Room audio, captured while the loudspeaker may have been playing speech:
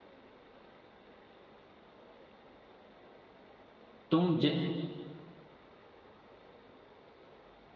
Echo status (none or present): none